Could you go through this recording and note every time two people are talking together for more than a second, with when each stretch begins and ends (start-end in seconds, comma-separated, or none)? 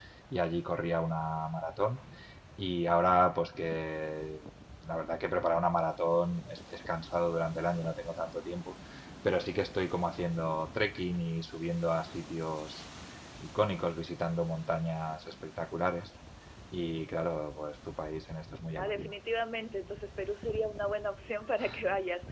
none